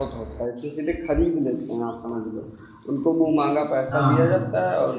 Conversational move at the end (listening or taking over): listening